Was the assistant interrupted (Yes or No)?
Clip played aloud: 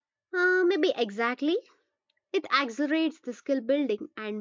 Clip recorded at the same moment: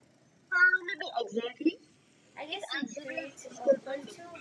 Yes